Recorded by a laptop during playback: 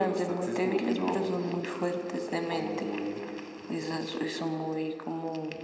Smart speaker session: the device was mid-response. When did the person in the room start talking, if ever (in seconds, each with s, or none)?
none